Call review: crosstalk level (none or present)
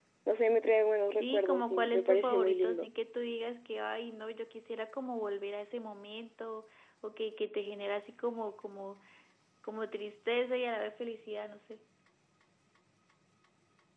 present